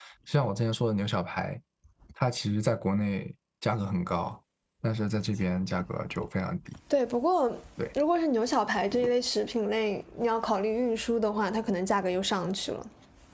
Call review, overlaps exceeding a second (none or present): none